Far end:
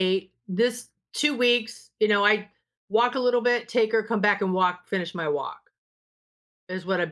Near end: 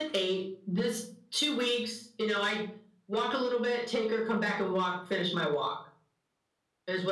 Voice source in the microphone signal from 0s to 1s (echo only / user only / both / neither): echo only